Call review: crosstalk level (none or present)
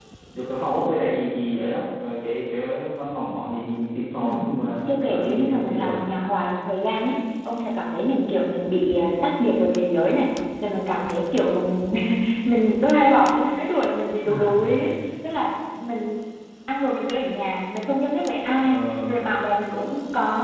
present